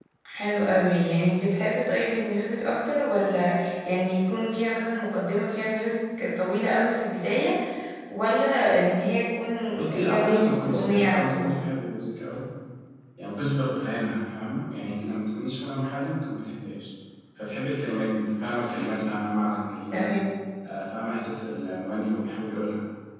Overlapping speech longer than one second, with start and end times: 9.9-11.6

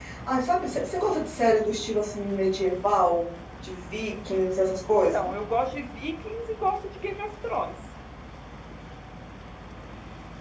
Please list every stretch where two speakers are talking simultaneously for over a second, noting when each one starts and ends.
none

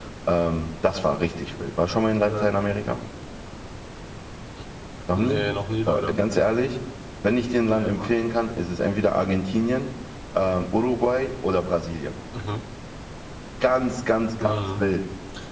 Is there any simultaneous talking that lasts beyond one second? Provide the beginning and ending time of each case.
none

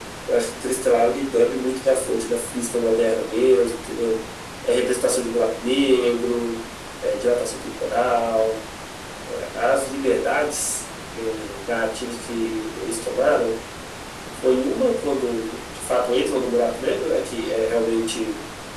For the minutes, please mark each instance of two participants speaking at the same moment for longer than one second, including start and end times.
none

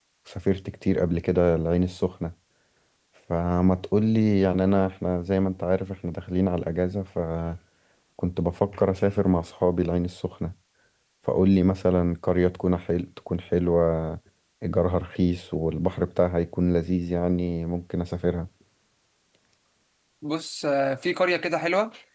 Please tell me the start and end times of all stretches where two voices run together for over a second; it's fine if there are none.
none

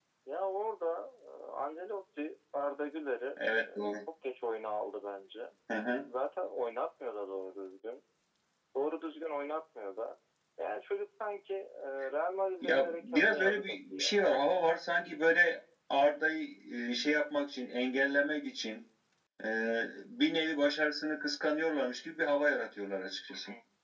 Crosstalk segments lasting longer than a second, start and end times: 12.6-14.2

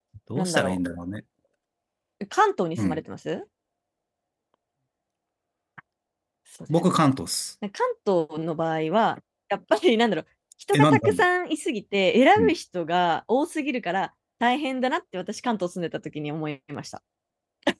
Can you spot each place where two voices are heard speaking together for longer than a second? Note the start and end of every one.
none

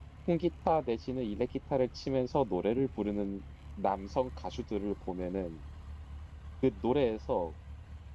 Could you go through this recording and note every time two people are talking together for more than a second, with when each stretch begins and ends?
none

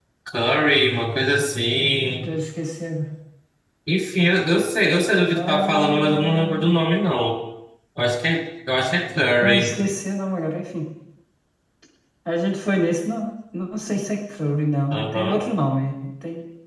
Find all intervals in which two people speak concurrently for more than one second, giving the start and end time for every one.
5.4-6.7

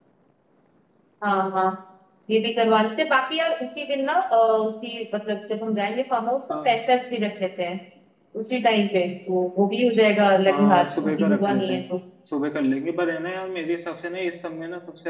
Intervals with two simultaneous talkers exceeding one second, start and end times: 10.5-11.8

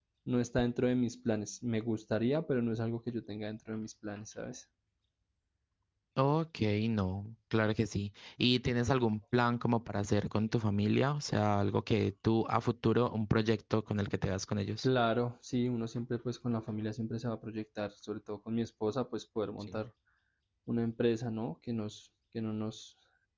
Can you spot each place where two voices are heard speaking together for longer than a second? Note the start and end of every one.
none

